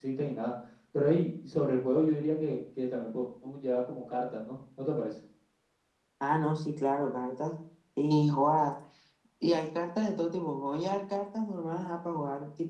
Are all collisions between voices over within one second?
Yes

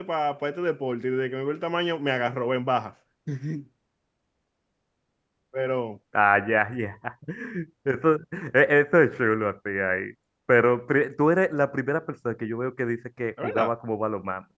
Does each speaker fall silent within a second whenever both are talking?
Yes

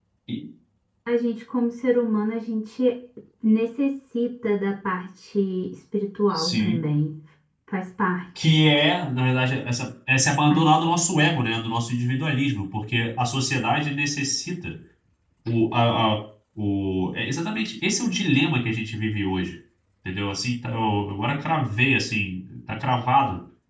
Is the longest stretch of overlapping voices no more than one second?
Yes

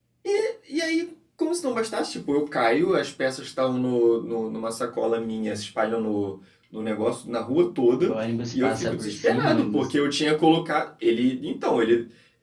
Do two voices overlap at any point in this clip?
Yes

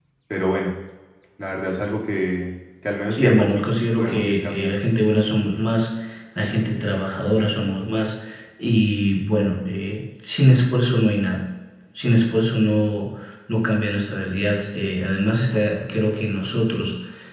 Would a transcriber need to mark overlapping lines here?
Yes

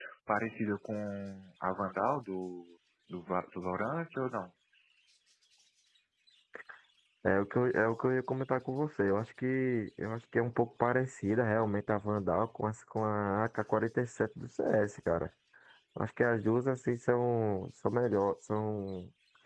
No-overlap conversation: Yes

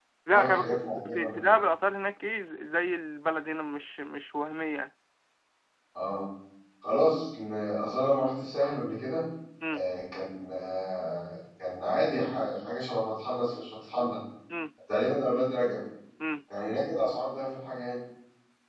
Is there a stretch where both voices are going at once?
Yes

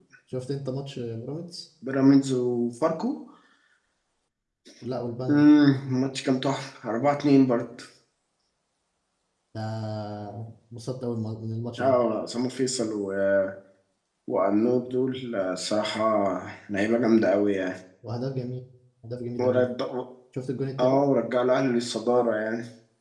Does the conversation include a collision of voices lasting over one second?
No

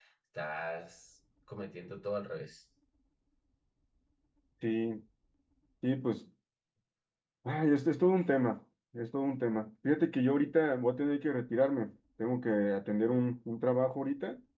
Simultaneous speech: No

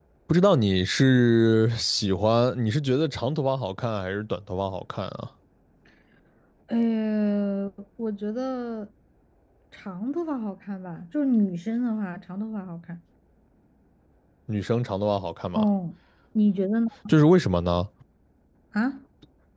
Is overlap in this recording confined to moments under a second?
Yes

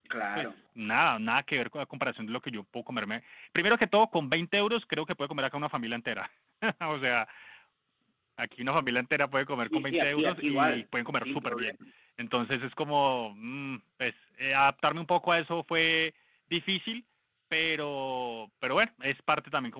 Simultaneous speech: Yes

